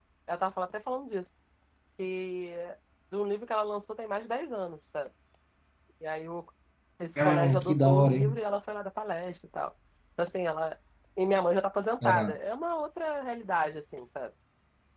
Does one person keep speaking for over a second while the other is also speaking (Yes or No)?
Yes